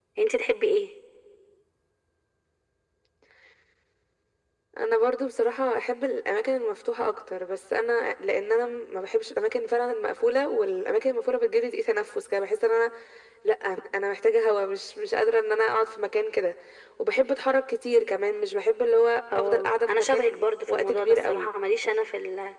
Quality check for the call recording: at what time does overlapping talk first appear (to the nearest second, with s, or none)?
19 s